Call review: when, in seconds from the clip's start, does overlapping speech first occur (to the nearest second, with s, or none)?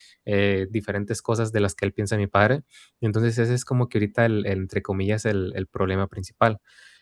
none